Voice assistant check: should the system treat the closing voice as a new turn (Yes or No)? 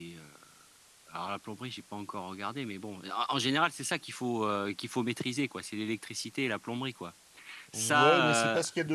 Yes